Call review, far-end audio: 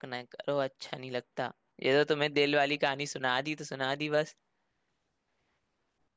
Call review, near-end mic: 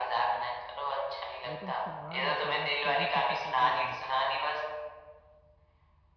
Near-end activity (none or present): present